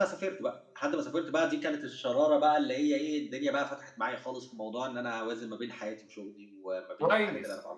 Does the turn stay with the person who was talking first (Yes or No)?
No